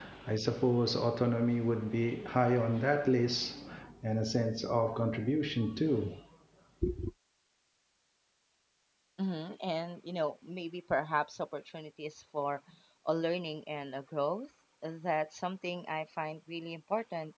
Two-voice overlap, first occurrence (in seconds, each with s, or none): none